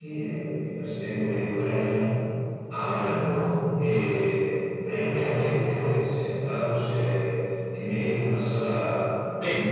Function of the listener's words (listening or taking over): listening